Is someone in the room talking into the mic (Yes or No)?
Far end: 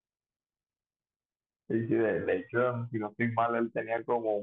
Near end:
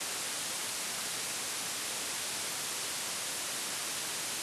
No